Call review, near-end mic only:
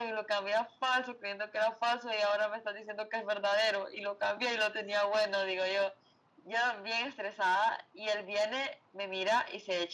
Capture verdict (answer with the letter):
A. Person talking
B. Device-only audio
B